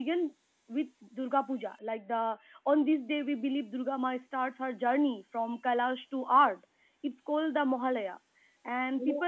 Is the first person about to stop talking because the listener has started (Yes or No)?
No